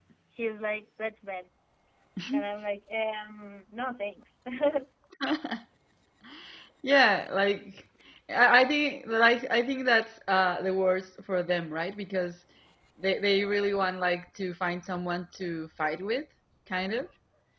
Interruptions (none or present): none